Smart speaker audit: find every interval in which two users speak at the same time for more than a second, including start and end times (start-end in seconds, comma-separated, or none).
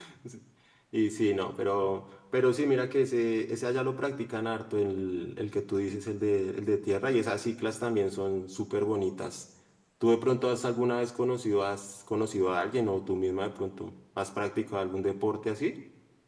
none